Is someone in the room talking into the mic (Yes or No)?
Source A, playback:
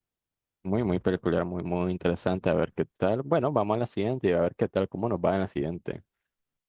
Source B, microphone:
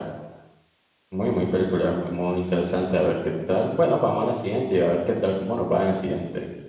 No